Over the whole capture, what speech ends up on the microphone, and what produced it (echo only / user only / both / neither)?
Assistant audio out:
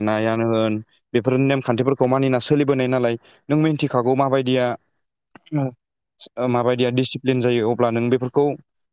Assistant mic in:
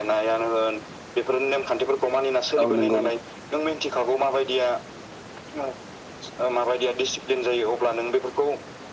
both